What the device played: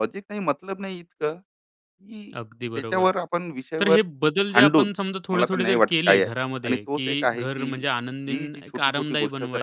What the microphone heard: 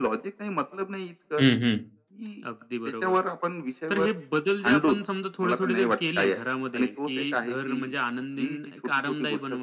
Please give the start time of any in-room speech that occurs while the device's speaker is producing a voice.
1.4 s

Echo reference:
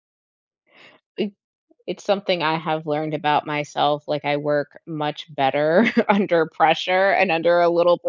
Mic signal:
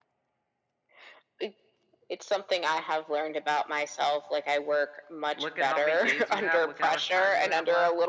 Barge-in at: 5.3 s

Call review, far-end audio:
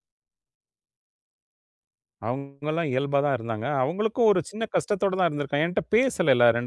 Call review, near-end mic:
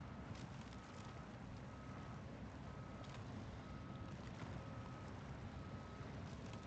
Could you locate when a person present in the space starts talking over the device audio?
none

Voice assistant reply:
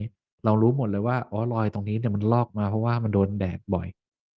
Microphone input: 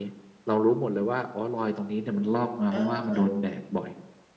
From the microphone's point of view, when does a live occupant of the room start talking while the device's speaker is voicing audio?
2.7 s

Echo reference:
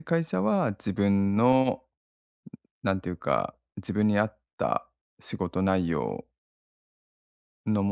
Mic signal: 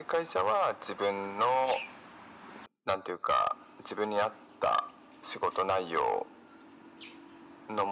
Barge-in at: none

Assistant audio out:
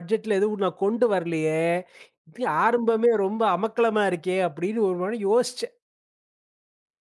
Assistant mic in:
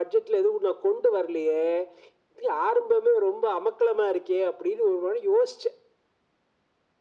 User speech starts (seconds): none

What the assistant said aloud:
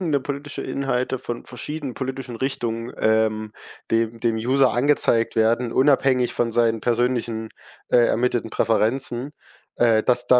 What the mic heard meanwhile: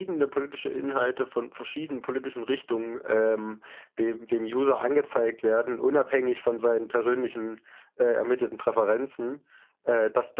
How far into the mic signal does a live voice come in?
none

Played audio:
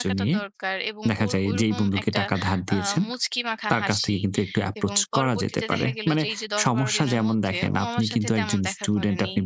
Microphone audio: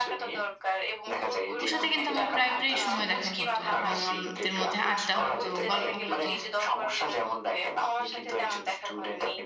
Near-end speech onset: 1.6 s

